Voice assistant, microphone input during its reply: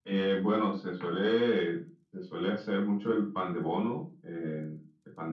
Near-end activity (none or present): none